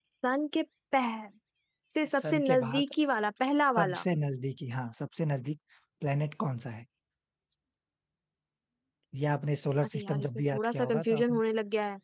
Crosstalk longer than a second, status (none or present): present